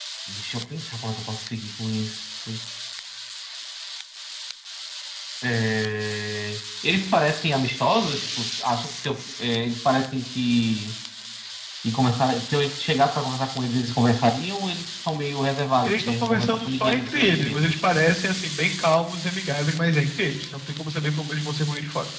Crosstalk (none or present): present